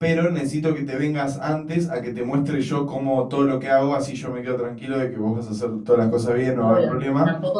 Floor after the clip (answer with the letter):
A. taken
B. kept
A